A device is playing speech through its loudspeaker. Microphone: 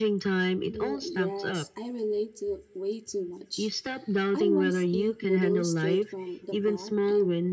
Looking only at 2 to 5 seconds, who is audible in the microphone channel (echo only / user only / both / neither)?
both